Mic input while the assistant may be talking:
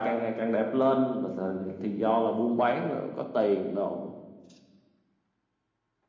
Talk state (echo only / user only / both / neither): echo only